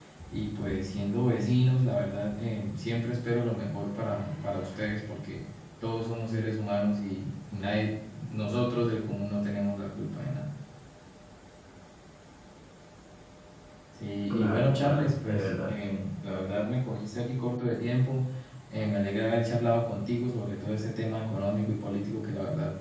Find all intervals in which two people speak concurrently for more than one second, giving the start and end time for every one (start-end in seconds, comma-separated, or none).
14.3-15.7